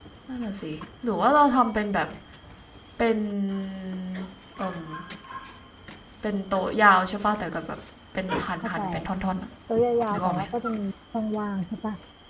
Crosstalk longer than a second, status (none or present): none